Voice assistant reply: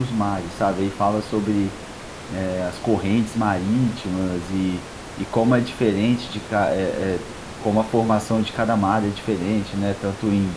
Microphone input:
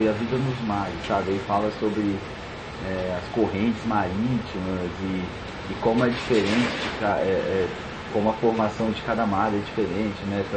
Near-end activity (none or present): none